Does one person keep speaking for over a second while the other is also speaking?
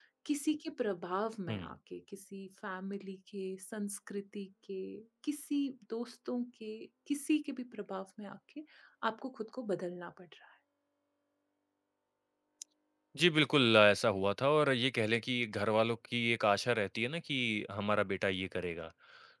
No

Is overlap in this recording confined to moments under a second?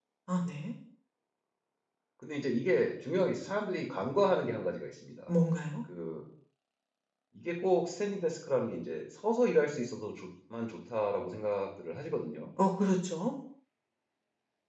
Yes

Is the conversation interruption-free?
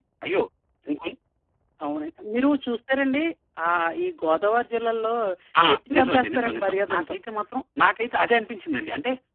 No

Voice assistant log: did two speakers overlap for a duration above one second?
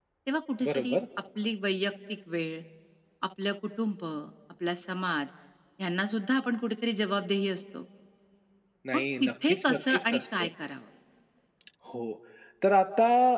Yes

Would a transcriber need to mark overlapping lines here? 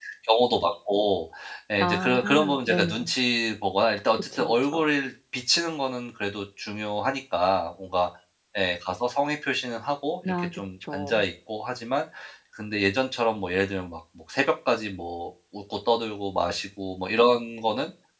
Yes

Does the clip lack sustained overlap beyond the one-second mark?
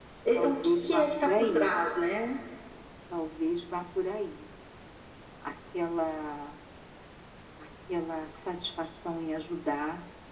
No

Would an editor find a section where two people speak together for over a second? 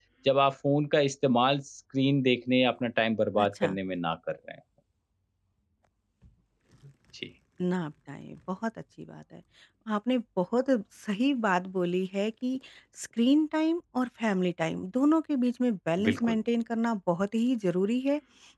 No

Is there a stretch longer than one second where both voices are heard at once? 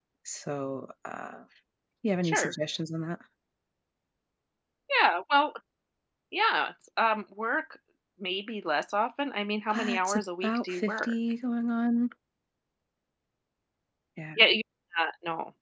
Yes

